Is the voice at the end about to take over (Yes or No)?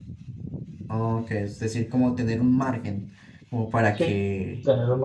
Yes